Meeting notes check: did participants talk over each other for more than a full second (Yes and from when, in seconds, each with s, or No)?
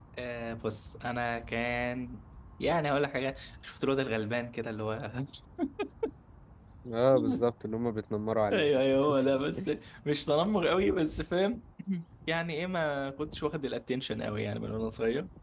No